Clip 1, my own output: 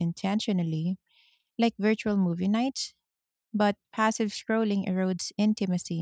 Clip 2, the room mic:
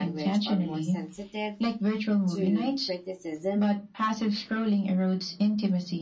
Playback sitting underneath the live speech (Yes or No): No